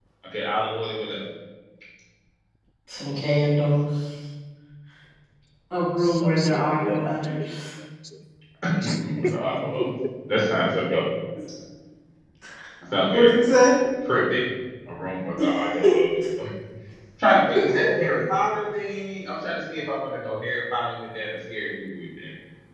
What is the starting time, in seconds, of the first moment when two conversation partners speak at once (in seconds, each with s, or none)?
6.0 s